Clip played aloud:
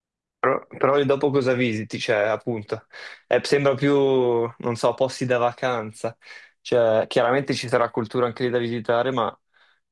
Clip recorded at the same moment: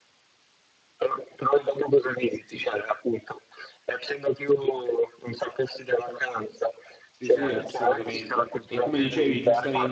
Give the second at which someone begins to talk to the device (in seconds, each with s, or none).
7.1 s